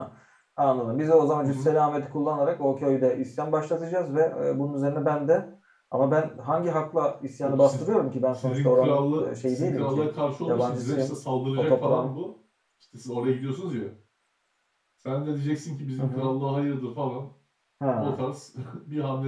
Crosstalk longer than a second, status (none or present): present